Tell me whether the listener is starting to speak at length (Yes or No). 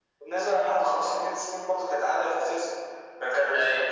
No